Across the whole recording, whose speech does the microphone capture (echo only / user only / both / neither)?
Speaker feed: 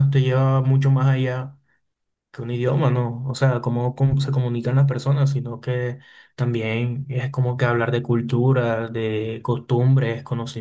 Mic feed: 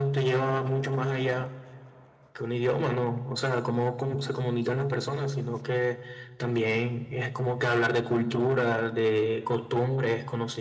echo only